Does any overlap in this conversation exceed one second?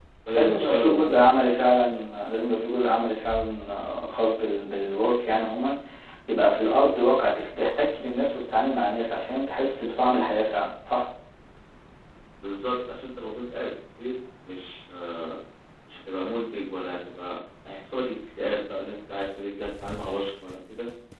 Yes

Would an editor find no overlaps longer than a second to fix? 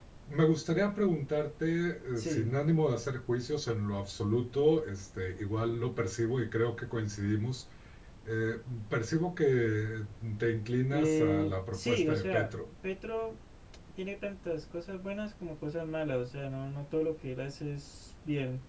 No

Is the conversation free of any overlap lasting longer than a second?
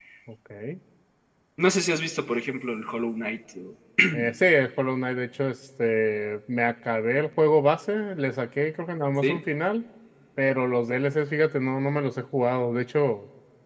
Yes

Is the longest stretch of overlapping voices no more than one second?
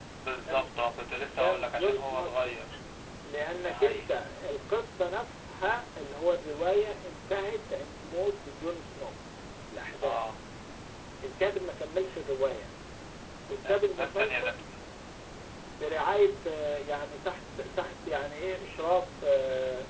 No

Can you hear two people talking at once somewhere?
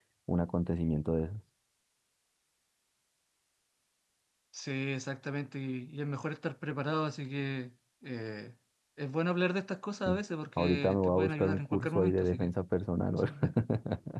Yes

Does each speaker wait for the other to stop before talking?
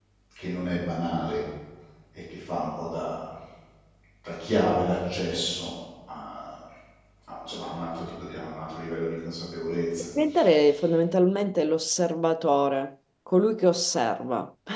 Yes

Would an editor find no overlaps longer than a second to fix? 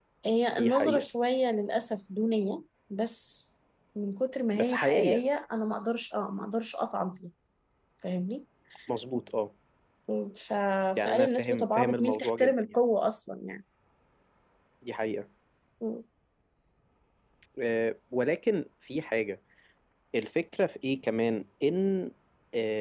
No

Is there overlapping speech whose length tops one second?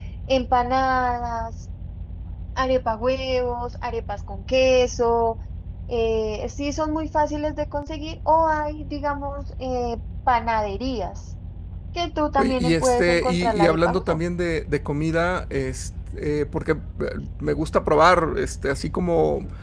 Yes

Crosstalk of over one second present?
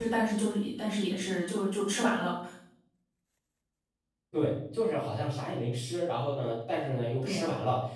No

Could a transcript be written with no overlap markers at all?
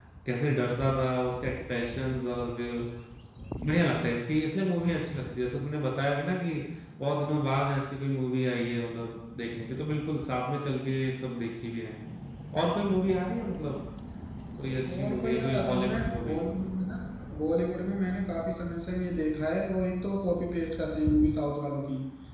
No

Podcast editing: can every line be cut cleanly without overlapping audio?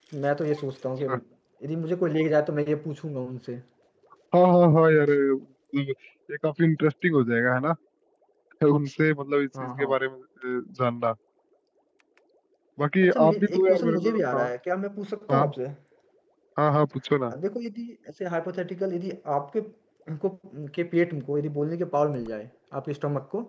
No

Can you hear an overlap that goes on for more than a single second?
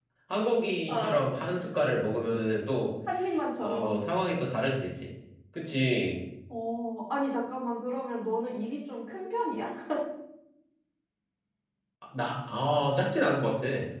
No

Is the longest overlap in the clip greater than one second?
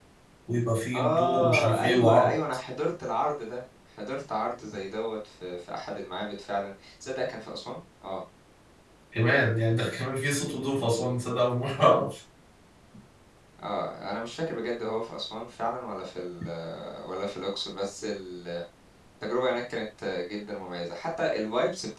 Yes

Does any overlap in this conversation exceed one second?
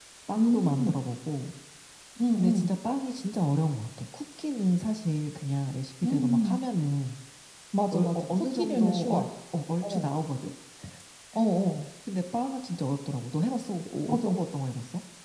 Yes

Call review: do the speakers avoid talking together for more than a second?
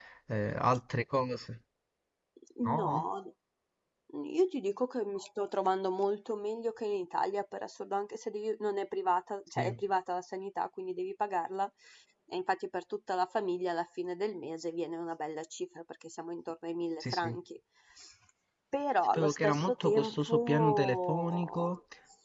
No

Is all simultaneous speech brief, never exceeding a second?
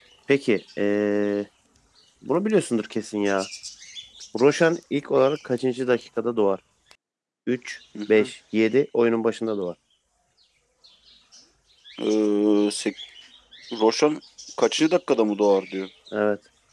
Yes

